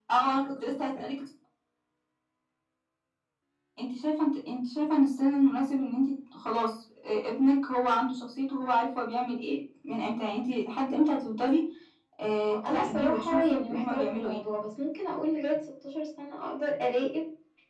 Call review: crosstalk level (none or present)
present